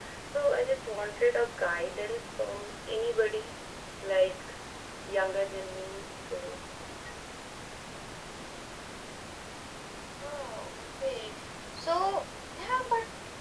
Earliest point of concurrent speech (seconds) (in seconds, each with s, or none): none